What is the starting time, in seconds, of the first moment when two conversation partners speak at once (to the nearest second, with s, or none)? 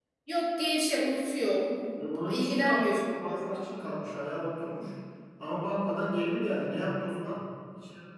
2 s